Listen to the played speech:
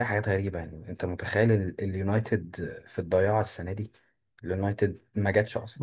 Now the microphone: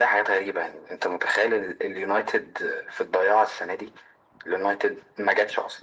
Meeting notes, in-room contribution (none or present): none